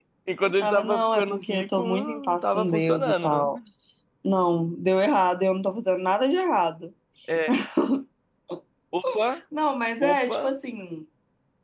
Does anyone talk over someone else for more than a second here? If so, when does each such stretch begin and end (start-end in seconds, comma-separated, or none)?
0.6-3.5